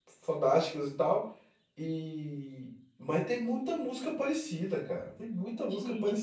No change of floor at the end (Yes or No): No